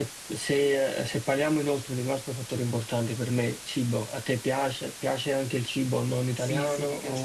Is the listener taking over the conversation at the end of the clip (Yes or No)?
Yes